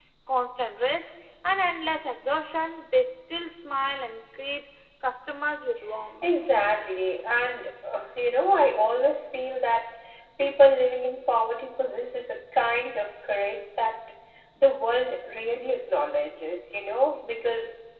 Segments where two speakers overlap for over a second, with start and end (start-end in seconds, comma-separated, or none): none